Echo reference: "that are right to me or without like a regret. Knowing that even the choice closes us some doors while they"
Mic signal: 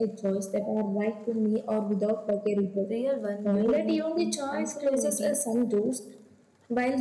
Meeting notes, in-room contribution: present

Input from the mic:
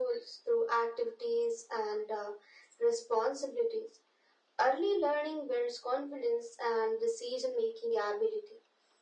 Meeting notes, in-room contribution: none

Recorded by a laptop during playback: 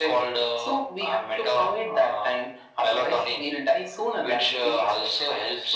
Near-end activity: none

